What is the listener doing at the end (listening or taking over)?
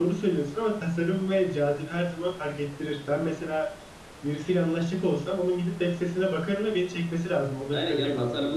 taking over